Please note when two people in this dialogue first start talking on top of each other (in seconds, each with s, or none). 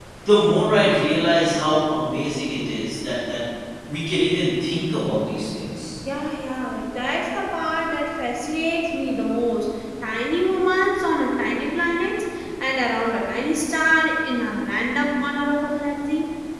none